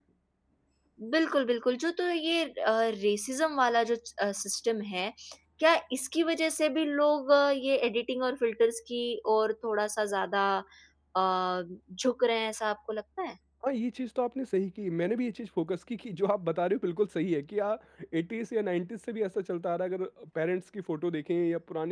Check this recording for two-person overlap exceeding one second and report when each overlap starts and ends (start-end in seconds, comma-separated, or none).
none